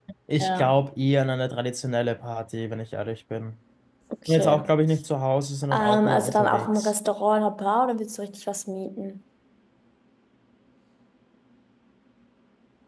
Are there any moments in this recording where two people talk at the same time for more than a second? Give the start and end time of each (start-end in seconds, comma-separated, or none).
5.7-6.9